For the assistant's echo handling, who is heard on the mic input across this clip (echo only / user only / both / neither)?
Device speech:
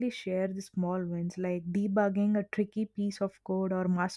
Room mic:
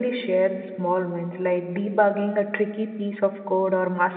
echo only